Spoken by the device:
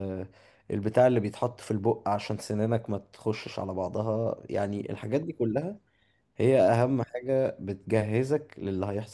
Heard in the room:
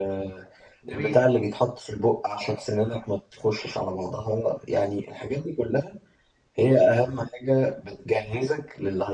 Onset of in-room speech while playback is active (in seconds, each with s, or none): 0.9 s